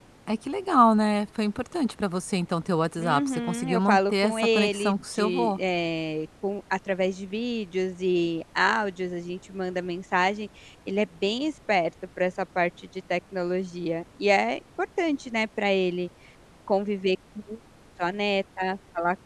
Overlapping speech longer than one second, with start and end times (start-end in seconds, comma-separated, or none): 3.0-5.6